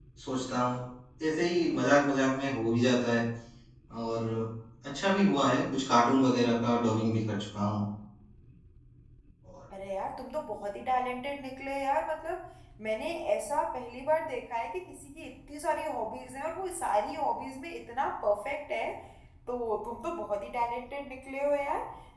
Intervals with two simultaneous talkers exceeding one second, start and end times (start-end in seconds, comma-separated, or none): none